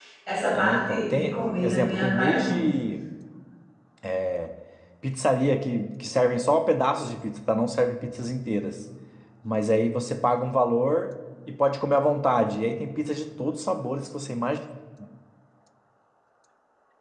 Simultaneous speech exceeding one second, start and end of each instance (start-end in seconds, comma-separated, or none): 0.5-2.6